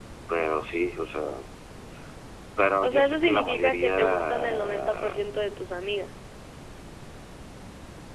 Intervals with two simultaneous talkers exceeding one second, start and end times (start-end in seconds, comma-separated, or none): 2.9-5.2